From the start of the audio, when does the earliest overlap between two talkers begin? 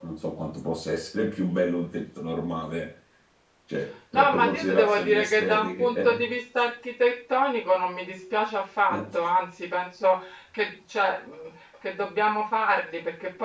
4 s

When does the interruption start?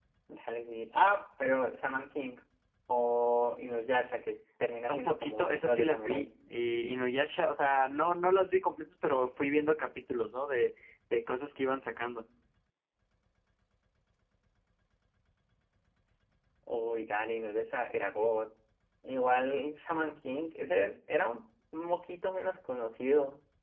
5 s

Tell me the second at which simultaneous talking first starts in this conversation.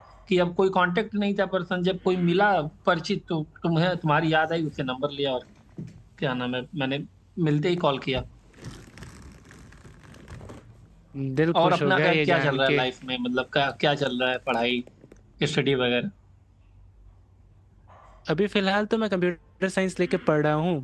12 s

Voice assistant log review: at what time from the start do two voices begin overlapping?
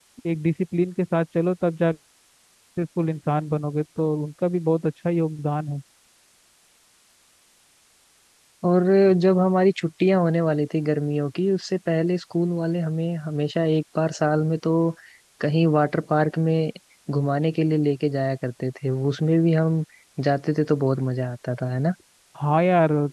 none

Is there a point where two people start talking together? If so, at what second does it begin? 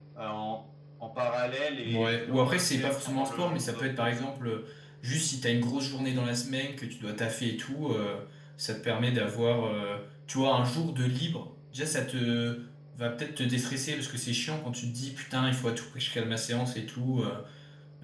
2 s

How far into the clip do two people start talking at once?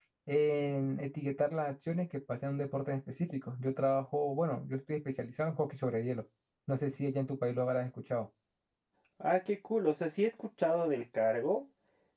none

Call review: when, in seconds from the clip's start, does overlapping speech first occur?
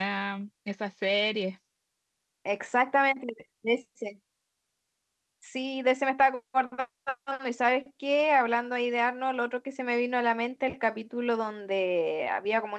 none

